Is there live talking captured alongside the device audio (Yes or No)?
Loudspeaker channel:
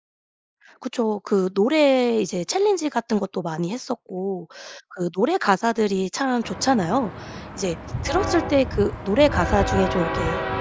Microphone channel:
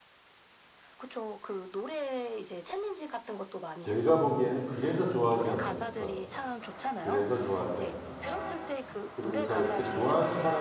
Yes